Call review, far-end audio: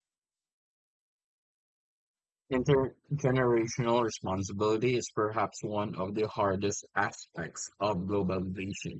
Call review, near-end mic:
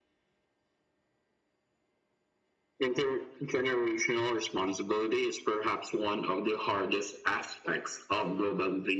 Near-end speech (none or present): none